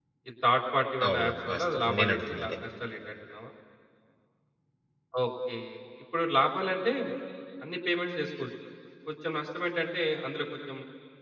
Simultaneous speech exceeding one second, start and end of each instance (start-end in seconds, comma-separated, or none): 1.1-2.6